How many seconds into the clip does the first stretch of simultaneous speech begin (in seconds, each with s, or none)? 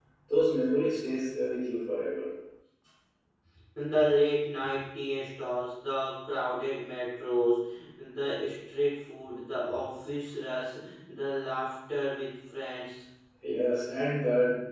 none